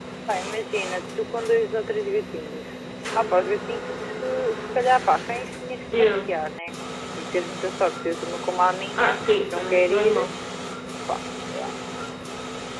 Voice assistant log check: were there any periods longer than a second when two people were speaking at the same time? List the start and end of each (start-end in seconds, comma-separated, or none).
9.0-10.2